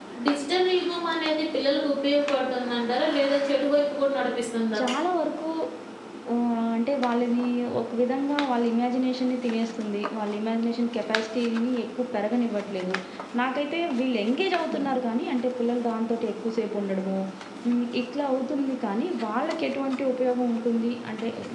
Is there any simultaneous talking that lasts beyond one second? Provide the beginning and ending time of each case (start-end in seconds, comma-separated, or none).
none